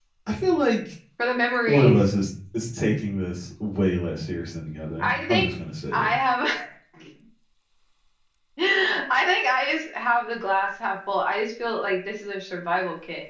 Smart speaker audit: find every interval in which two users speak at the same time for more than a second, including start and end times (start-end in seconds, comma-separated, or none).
none